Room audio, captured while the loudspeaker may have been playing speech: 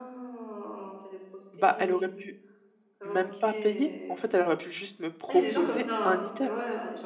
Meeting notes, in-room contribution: present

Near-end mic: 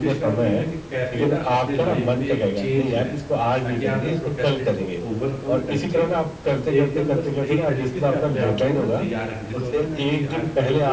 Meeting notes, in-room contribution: present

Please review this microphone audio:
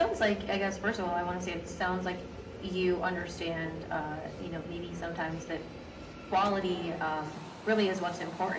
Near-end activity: none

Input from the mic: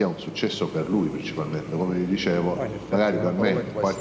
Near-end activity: present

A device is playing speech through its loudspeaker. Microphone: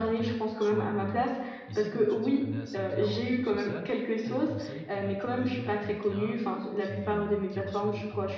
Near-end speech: present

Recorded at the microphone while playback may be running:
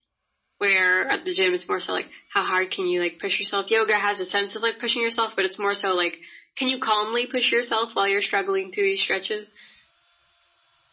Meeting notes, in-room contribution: none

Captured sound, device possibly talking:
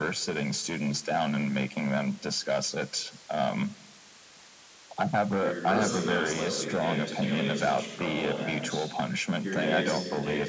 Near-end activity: present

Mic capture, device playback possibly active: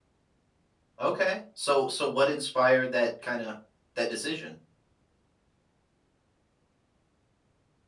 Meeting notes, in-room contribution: present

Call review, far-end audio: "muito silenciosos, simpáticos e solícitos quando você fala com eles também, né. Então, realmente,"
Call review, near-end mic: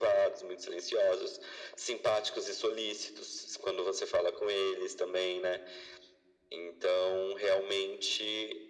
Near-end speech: none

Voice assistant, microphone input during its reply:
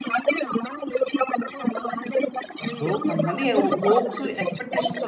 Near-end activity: present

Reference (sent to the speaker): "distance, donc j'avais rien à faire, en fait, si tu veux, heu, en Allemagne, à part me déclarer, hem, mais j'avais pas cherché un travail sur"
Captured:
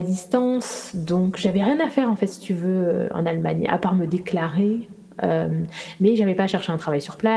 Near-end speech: none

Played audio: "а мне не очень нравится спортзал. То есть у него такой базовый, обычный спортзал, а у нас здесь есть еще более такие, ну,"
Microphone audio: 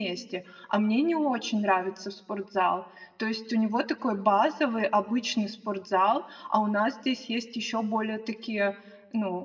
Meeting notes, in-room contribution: none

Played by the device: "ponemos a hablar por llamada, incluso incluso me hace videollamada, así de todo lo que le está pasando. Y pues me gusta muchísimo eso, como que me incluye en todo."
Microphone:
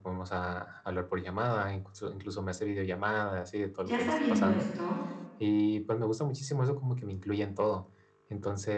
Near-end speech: present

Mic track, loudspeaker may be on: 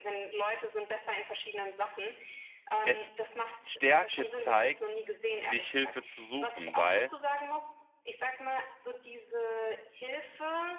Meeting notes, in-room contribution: present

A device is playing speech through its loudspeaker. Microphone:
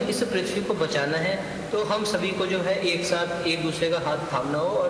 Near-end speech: none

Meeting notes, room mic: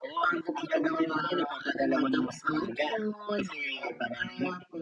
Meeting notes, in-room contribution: none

